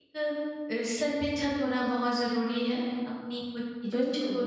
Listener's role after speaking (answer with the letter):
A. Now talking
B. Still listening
B